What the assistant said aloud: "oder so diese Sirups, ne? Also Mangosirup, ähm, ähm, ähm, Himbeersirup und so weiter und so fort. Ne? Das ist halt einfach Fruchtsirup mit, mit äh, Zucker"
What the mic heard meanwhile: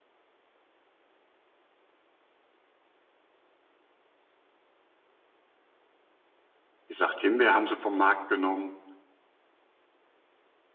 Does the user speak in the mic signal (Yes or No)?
Yes